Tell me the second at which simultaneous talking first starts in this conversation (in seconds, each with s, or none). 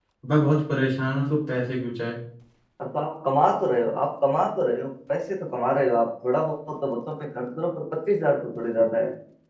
none